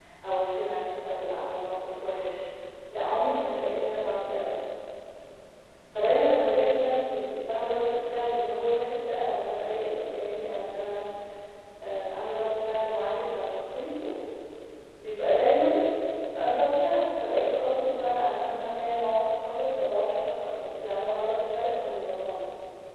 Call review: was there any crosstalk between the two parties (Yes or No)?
No